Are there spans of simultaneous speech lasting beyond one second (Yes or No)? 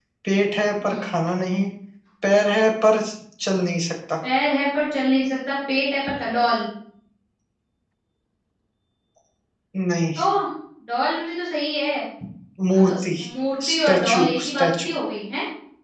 Yes